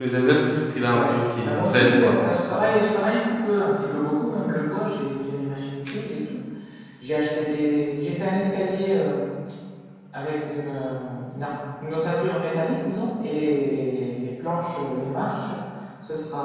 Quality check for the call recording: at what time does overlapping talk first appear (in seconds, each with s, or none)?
0.9 s